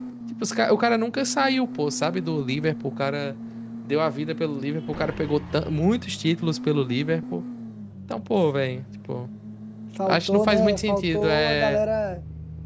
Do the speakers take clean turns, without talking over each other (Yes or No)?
No